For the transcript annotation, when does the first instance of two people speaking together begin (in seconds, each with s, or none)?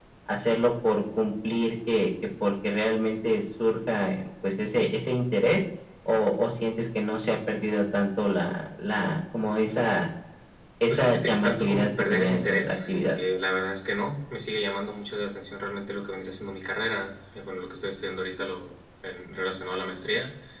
10.9 s